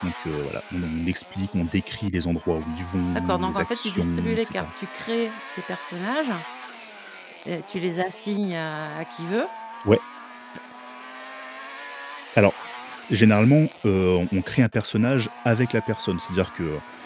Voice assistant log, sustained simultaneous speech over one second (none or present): present